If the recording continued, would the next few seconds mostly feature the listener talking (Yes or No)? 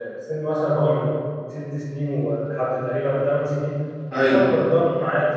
No